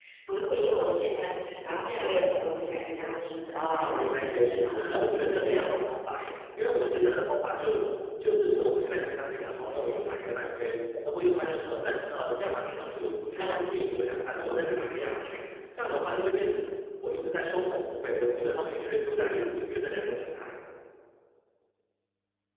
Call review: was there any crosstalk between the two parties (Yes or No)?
Yes